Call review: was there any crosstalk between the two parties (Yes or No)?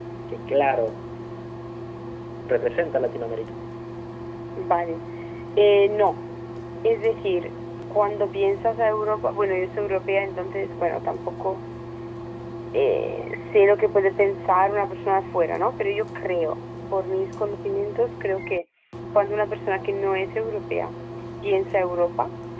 No